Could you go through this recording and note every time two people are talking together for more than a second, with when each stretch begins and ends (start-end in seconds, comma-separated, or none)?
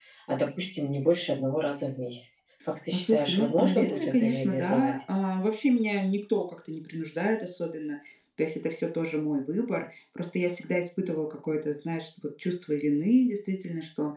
2.9-4.9